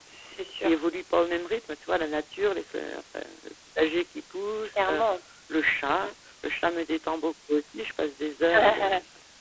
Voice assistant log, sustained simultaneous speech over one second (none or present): none